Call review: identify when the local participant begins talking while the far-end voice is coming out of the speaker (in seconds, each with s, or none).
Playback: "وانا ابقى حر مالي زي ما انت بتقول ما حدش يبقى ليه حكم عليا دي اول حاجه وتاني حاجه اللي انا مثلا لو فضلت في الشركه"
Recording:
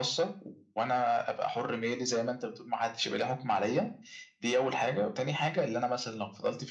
none